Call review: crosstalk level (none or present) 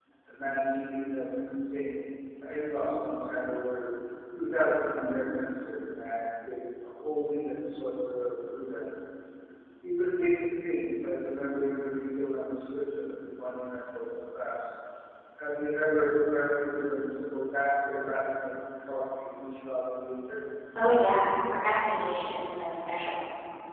none